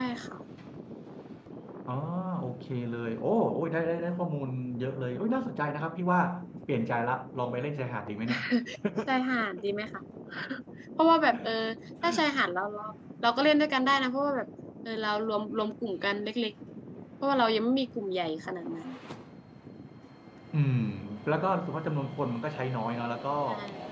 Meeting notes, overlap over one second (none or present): none